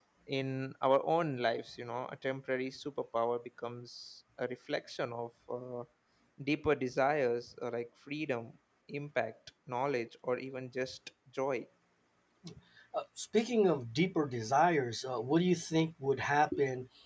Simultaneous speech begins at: none

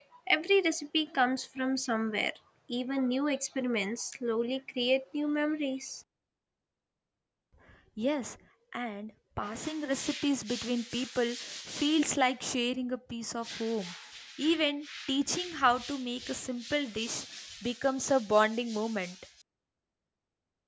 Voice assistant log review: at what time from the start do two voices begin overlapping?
none

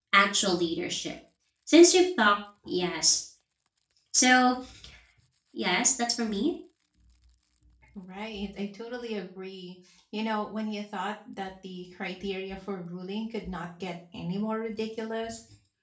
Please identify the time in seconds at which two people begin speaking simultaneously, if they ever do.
none

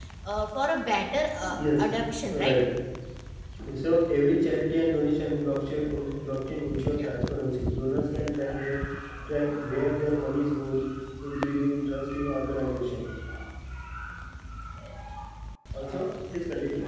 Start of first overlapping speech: 1.4 s

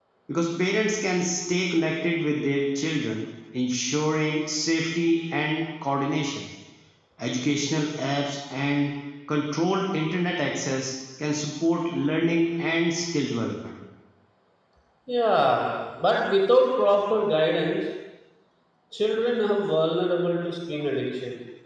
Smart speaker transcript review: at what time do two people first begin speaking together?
none

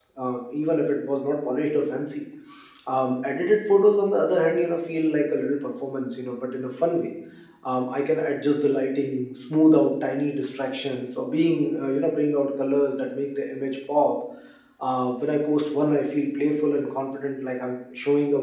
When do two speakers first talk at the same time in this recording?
none

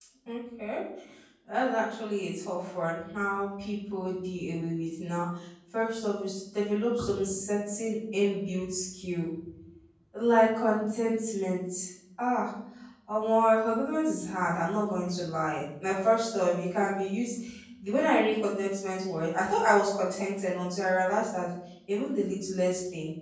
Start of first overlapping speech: none

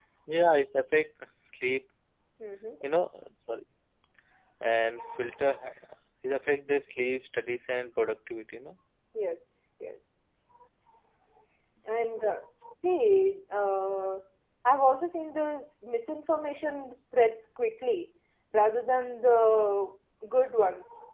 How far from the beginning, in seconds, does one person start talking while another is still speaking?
none

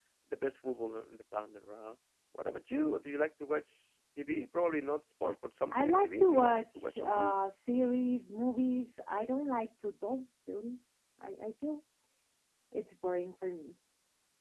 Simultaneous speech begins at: 5.7 s

